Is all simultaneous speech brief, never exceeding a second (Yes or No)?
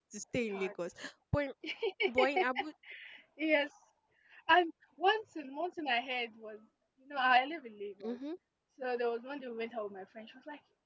Yes